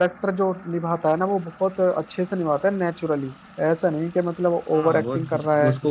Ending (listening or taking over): taking over